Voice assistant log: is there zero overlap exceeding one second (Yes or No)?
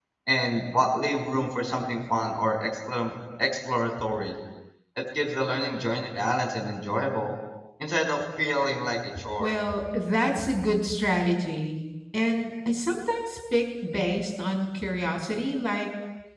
Yes